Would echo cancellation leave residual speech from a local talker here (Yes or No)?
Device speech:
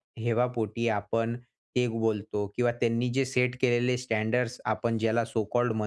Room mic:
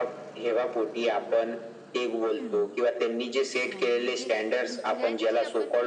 Yes